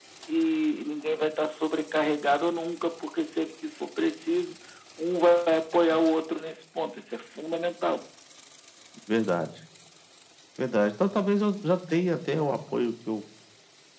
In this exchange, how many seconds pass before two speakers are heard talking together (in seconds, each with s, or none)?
none